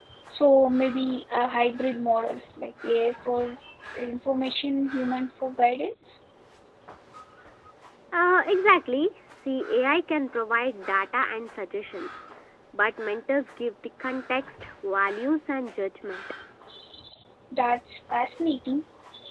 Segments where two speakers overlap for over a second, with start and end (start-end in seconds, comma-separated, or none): none